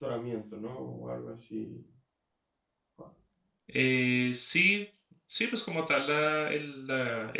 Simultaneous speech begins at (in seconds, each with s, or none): none